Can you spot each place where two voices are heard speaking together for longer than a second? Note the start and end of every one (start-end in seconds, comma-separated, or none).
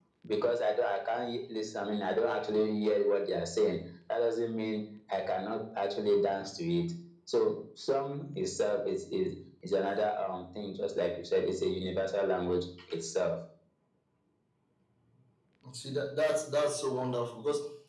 none